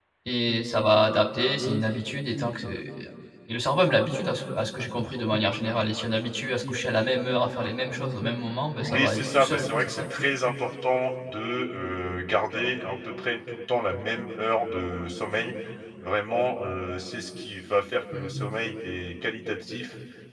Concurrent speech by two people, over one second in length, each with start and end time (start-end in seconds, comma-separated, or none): 8.8-10.0